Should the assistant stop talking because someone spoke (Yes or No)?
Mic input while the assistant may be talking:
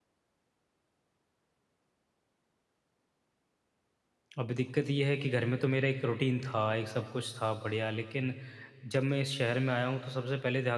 Yes